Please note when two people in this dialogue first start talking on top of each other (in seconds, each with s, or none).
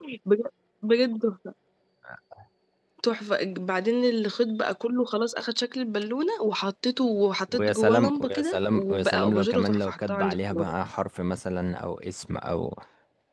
7.5 s